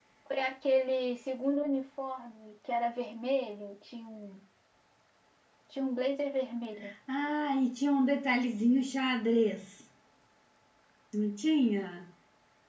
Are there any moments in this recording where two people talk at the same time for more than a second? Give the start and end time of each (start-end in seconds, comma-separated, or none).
none